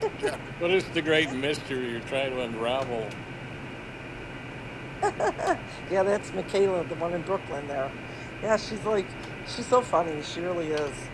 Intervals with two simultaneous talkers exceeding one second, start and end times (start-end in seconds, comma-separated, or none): none